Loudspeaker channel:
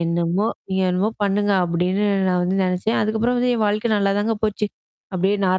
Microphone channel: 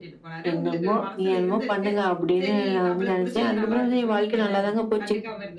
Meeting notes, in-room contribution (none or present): present